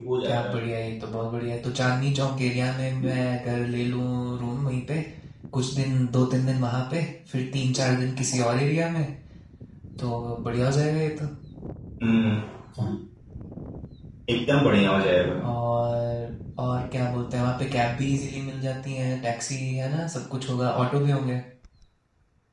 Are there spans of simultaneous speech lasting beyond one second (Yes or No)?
No